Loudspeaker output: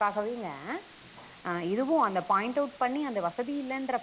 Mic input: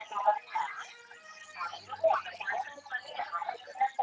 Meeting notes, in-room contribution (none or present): none